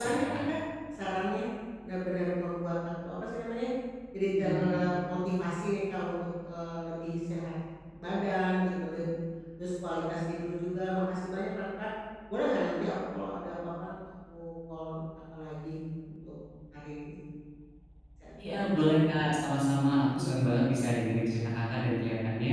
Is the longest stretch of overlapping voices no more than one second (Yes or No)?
Yes